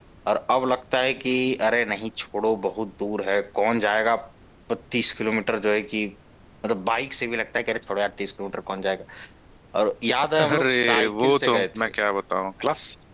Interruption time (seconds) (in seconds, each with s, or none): 10.4 s